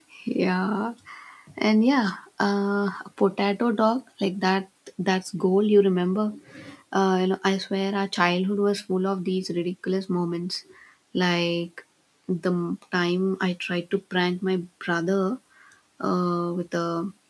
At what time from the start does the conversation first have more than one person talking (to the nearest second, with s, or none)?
none